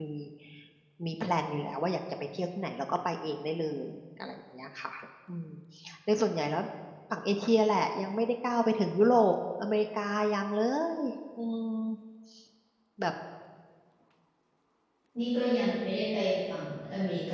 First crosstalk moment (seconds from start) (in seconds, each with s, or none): none